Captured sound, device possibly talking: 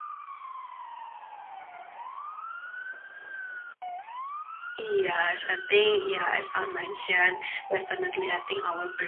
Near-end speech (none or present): none